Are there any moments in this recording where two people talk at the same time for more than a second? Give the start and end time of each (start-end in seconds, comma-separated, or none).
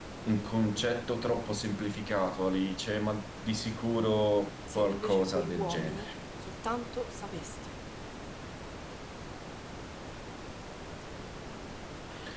4.8-6.0